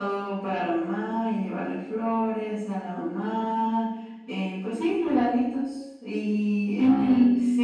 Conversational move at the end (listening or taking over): listening